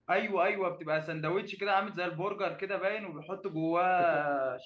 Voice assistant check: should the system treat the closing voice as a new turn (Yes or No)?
Yes